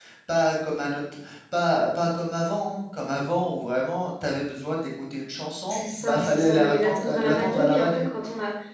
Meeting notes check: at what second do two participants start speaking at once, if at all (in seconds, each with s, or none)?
5.7 s